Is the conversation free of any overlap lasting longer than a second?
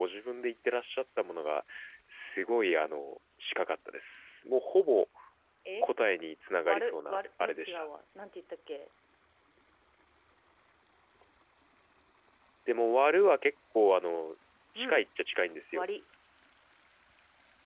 No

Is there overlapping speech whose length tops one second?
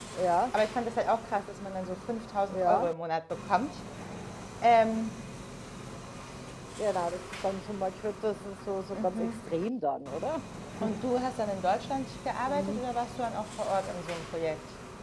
No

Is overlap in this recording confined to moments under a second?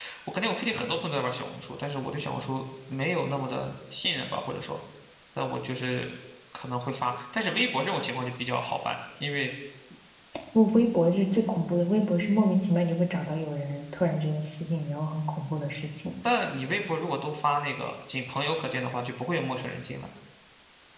Yes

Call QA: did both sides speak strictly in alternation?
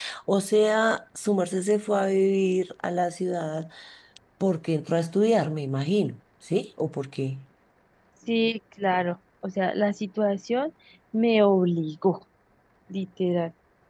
Yes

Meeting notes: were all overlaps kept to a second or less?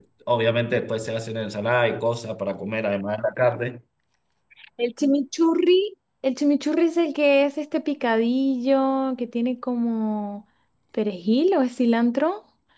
Yes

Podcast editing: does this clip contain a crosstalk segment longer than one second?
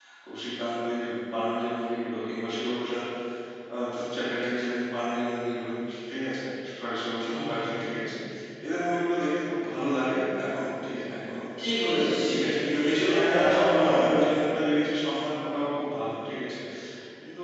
Yes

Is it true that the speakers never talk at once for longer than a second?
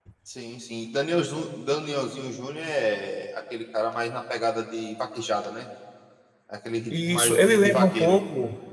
No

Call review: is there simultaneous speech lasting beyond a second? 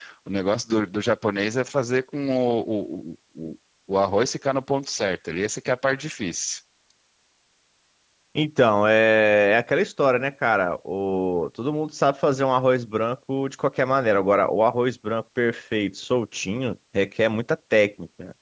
No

